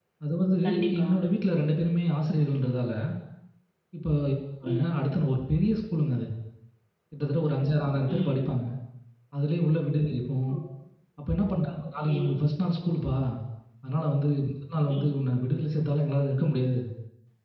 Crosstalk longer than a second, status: none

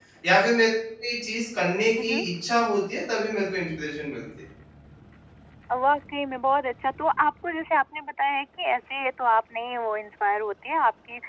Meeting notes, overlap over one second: none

